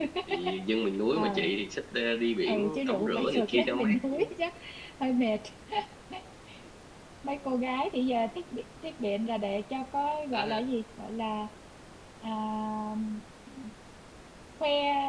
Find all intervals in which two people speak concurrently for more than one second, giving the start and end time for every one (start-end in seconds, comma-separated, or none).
2.5-4.2